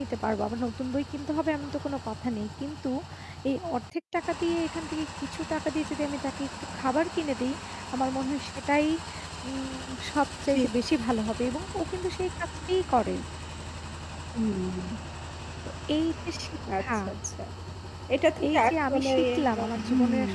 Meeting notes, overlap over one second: present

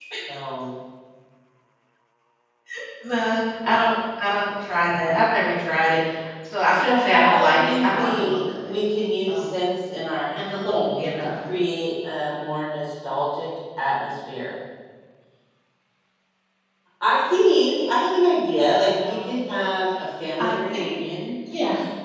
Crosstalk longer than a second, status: present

